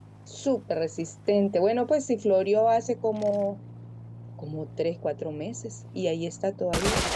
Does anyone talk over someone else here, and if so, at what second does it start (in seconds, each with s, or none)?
none